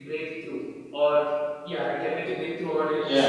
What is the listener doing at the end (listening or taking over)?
taking over